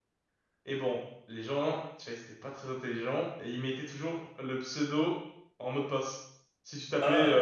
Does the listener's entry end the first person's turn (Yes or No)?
No